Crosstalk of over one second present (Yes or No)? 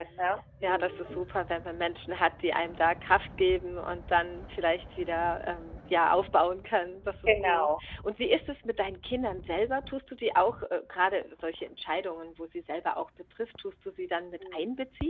No